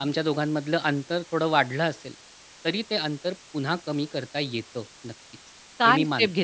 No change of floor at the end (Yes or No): No